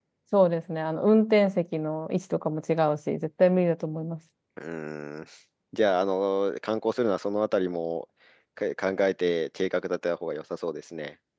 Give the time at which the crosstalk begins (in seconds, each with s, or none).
none